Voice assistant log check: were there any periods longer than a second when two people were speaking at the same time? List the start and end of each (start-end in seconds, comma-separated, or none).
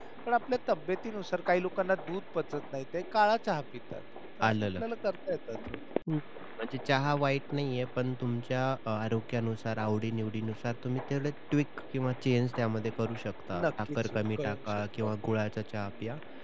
13.6-15.1